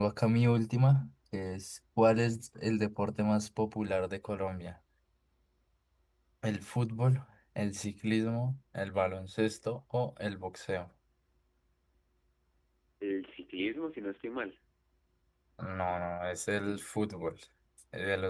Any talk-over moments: No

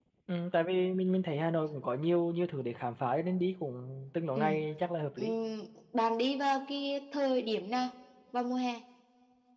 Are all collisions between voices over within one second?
Yes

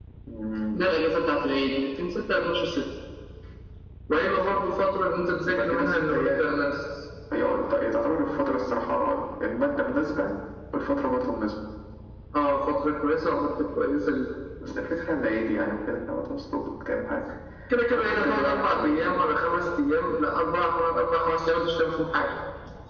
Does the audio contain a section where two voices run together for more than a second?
Yes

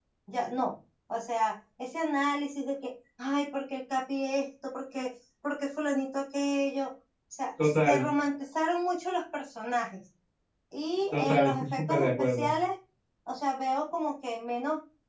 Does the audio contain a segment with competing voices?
Yes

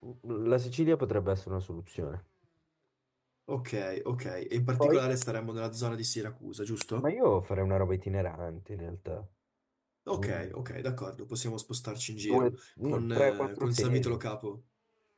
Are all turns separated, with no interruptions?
No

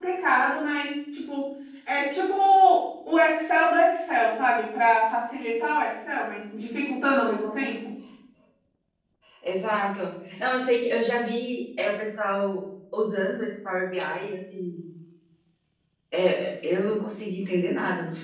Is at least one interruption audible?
No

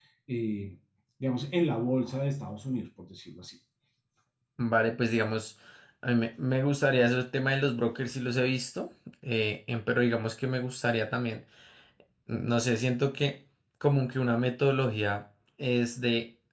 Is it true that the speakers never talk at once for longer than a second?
Yes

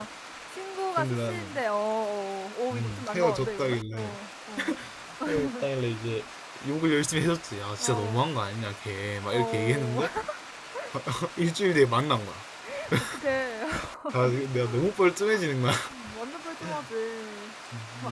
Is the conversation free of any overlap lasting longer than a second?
No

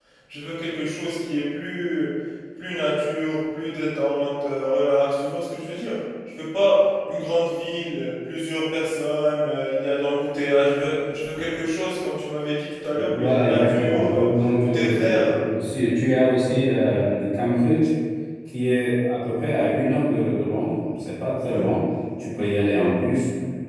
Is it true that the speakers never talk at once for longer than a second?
No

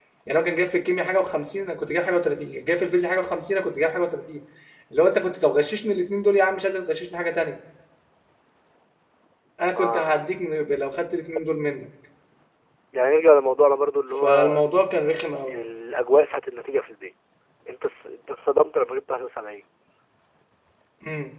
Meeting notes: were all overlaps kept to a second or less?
Yes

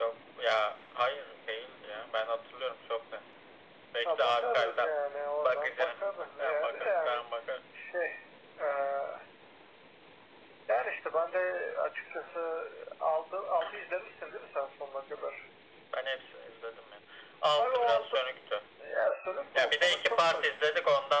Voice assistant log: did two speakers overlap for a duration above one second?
Yes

